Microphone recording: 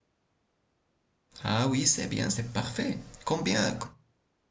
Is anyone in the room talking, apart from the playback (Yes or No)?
Yes